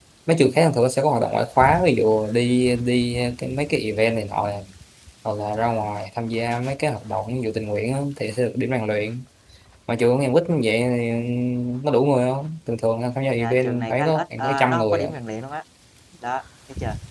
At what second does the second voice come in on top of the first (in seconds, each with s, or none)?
13.3 s